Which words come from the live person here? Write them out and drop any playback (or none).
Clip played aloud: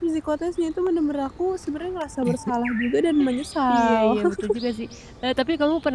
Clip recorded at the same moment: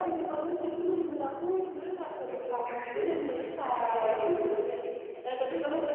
none